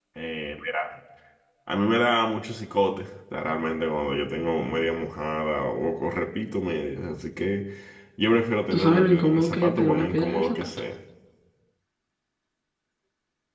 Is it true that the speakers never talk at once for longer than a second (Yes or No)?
No